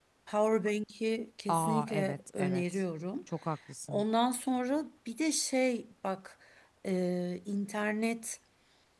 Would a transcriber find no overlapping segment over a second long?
No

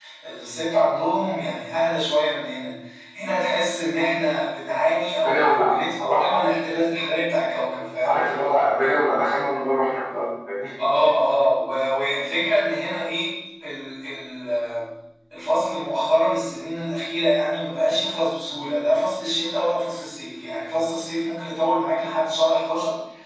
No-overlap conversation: No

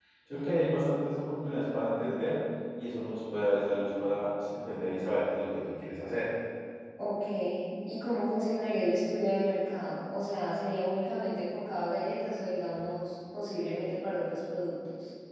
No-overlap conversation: Yes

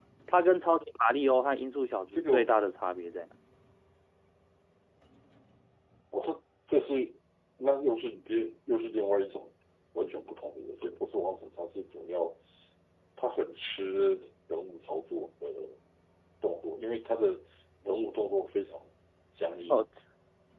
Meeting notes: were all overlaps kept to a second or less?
Yes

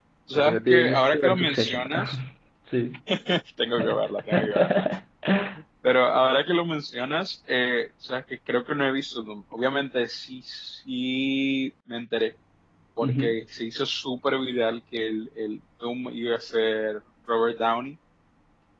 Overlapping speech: Yes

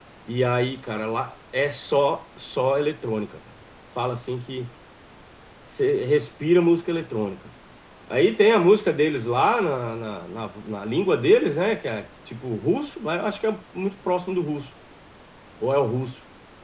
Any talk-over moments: No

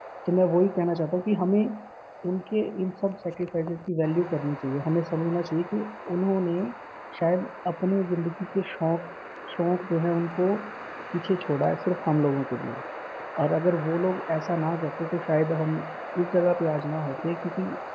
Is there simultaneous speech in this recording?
No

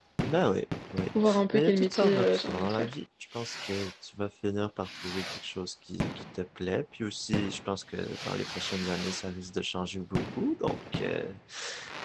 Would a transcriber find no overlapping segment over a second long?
No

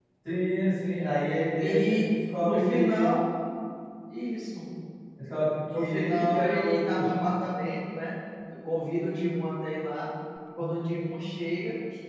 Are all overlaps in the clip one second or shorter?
No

